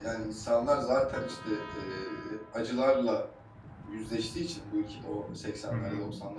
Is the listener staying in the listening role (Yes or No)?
Yes